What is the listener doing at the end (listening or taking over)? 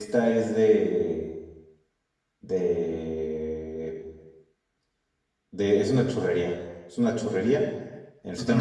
listening